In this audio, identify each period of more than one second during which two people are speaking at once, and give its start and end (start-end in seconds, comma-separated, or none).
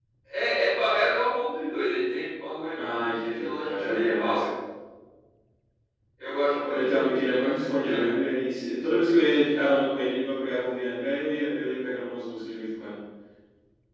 2.8-4.4, 6.7-8.4